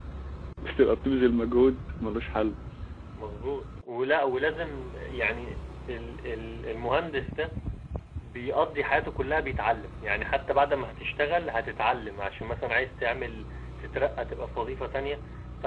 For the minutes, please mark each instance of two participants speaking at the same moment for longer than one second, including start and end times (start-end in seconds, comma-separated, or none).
none